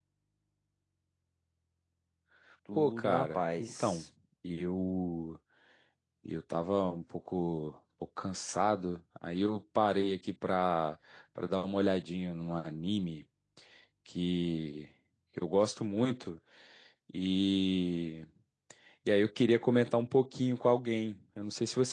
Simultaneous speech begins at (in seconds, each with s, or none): 2.8 s